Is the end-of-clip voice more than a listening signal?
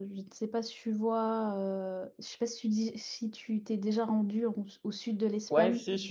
Yes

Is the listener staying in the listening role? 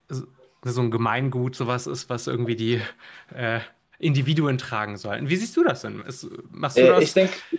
No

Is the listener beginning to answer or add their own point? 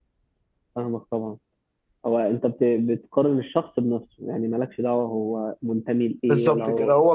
Yes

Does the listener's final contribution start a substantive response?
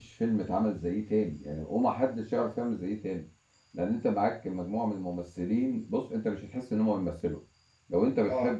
No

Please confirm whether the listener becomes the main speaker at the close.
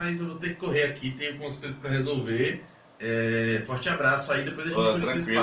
Yes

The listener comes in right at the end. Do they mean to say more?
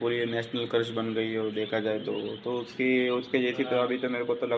No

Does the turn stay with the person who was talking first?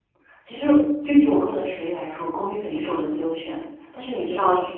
Yes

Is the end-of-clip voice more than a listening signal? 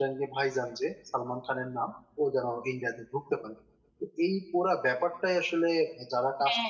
No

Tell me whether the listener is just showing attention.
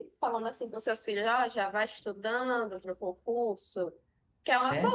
Yes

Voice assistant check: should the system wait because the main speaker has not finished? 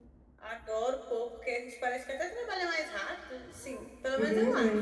No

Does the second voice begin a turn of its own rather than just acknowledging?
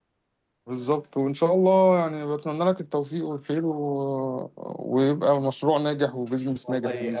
Yes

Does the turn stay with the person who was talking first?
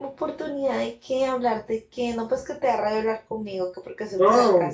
No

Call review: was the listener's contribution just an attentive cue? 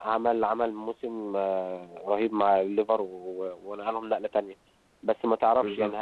Yes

